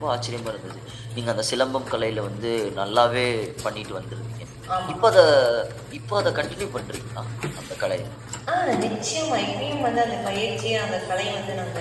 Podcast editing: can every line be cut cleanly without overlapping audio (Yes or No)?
Yes